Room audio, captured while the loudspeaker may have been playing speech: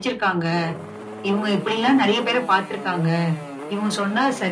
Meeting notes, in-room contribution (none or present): none